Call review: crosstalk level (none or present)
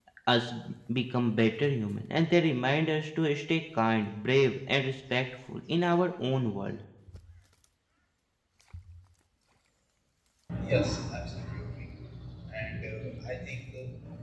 none